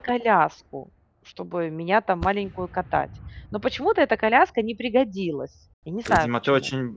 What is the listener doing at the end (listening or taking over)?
taking over